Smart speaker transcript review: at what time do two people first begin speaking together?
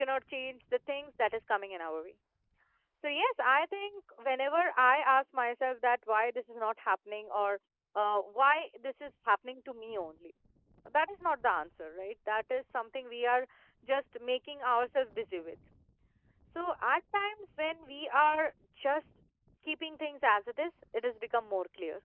none

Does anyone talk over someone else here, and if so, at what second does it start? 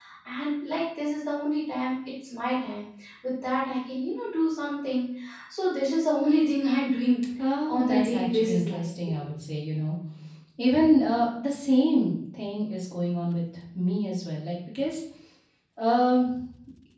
7.7 s

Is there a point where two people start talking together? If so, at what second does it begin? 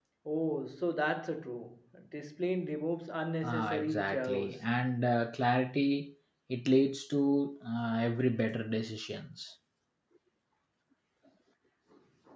3.4 s

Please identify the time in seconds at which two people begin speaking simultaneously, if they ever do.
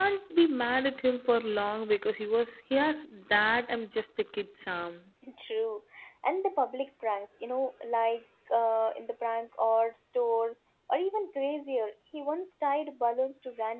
none

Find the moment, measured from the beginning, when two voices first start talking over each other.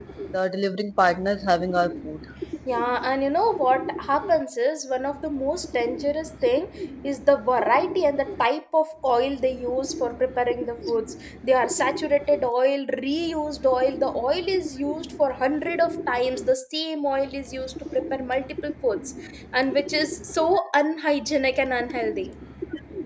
none

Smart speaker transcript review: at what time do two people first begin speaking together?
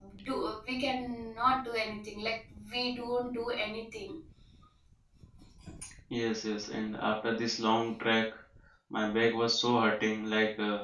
none

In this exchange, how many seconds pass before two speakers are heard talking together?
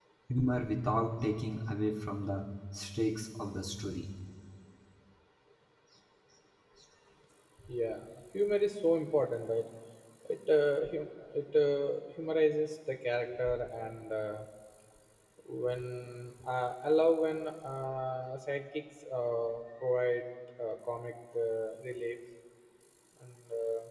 none

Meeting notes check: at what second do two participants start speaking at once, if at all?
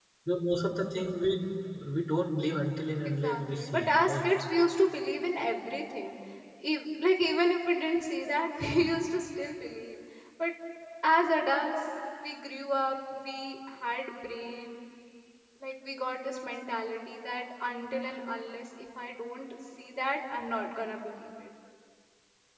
3.0 s

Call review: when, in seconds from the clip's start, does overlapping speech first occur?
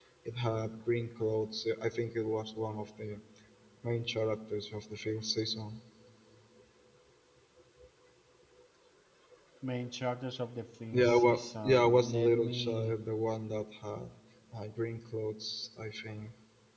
10.9 s

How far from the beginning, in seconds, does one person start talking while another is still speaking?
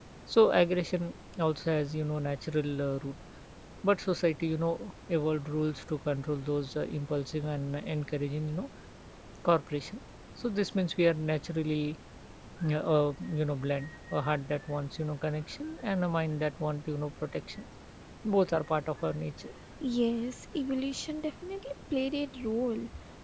none

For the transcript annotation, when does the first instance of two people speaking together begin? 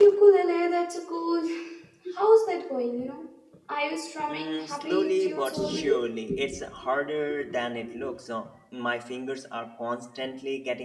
4.3 s

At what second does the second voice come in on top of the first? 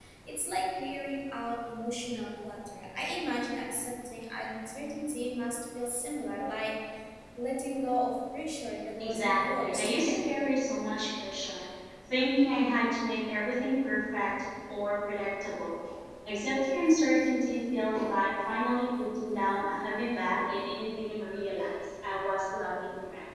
9.0 s

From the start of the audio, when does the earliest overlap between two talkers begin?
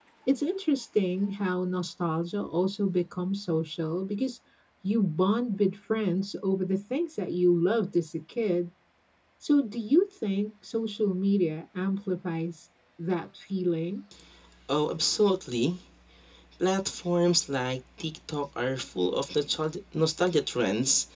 none

